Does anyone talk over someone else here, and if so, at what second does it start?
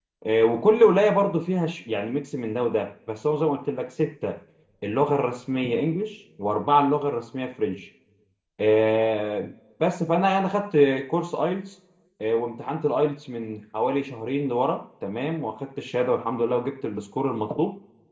none

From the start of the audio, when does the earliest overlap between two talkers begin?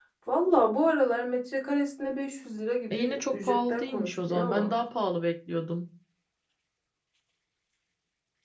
2.9 s

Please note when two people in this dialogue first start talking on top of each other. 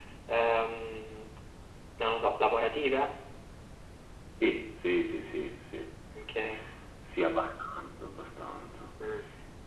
none

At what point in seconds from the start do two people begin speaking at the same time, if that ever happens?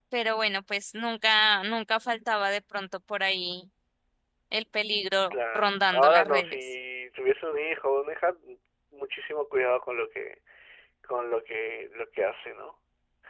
5.3 s

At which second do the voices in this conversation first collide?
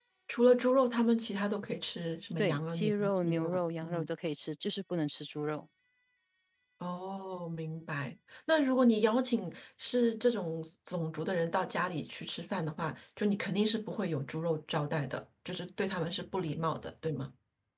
2.4 s

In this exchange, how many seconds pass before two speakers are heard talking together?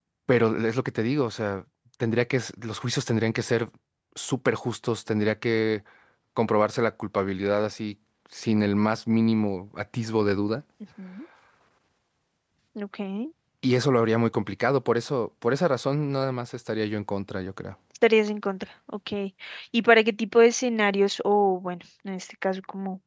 none

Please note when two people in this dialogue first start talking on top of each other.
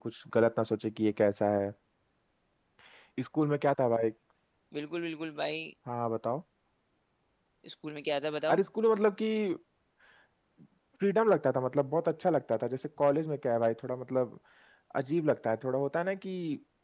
none

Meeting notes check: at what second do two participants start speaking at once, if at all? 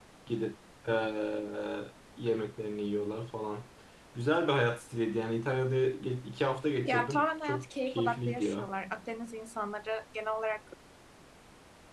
6.8 s

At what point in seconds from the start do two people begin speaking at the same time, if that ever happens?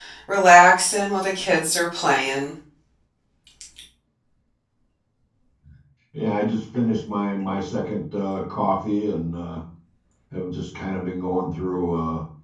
none

